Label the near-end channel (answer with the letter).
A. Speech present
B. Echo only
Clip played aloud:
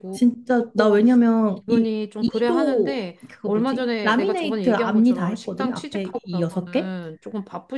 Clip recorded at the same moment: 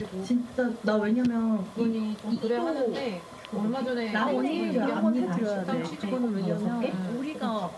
A